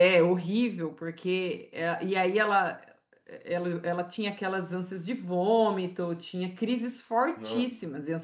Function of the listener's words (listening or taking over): listening